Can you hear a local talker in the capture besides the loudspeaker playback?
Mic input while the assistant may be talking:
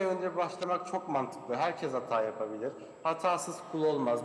No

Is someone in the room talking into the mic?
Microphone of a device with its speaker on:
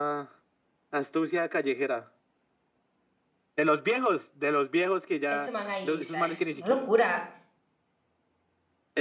Yes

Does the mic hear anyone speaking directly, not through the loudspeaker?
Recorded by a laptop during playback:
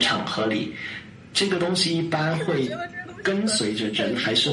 Yes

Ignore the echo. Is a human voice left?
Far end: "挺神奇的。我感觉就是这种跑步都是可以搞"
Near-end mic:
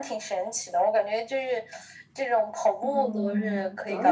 Yes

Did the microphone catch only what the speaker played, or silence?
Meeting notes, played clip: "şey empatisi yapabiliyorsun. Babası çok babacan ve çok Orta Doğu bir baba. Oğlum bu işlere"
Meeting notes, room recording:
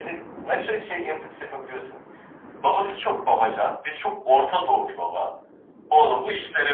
Yes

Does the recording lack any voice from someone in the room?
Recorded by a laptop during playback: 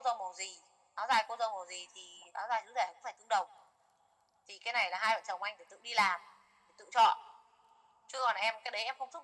Yes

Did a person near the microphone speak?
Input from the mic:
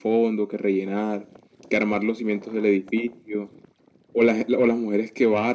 No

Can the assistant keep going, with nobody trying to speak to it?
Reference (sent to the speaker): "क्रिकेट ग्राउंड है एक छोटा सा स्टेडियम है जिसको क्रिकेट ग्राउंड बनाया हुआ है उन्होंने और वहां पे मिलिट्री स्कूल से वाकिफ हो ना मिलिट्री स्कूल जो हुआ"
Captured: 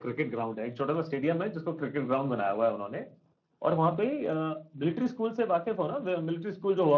Yes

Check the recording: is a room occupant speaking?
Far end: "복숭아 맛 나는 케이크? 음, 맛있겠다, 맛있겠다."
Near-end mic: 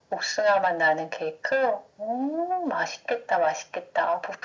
No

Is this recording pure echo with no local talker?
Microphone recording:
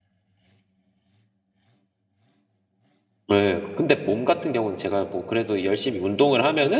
No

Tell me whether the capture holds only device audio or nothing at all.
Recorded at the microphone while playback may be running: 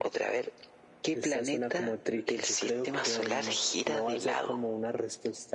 Yes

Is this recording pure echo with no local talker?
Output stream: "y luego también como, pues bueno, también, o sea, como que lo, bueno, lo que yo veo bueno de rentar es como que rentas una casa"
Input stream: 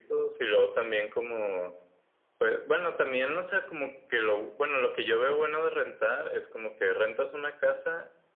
Yes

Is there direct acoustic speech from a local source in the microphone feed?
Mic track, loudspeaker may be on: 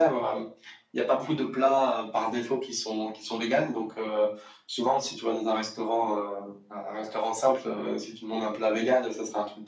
No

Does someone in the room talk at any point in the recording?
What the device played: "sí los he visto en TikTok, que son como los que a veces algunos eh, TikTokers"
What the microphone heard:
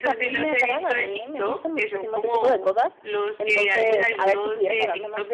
Yes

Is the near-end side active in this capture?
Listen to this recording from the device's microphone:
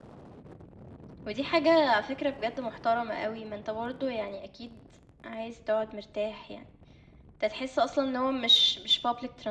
No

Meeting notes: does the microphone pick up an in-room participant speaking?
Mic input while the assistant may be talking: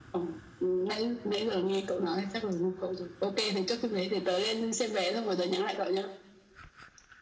No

